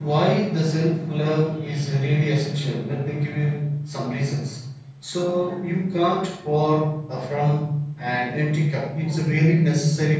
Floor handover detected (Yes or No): No